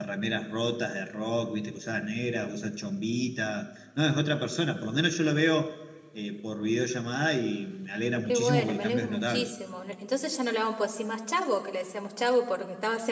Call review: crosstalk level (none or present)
present